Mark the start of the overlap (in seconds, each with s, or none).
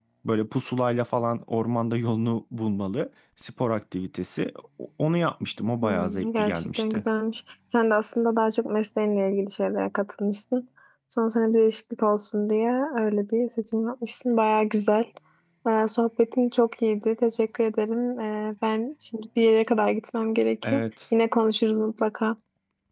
5.8 s